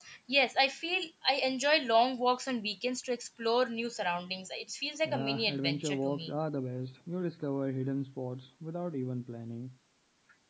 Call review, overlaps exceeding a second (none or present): present